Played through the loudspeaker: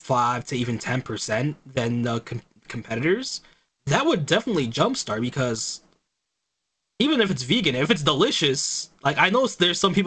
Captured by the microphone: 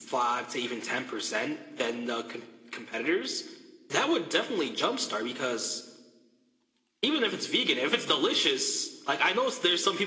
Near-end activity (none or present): none